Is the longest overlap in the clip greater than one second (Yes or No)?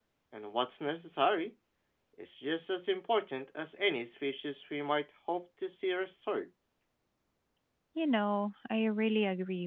No